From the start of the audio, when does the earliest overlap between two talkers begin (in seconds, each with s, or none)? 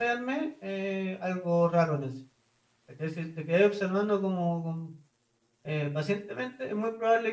none